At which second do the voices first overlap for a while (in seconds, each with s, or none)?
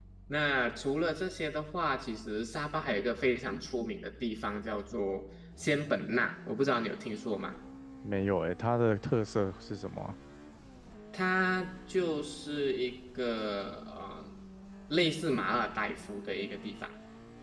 none